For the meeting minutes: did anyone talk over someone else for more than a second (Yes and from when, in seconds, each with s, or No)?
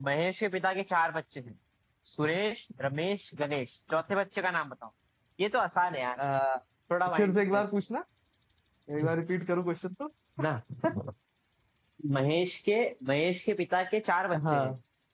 No